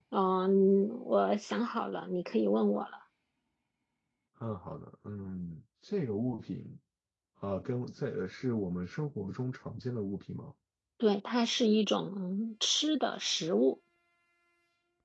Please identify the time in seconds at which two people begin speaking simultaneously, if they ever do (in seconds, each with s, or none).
none